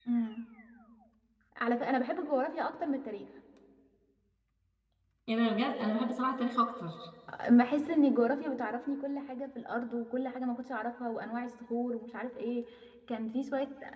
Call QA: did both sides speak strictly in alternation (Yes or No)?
Yes